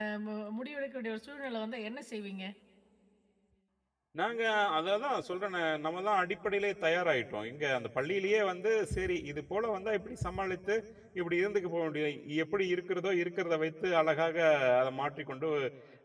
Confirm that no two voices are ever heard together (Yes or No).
Yes